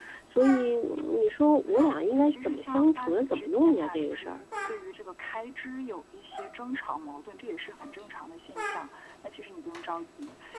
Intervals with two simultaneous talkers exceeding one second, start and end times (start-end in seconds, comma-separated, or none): 1.7-4.3